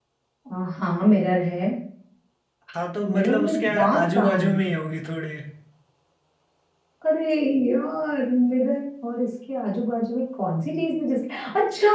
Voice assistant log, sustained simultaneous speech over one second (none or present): present